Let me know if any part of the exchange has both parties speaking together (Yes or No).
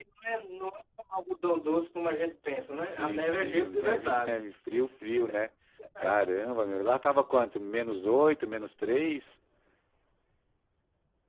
Yes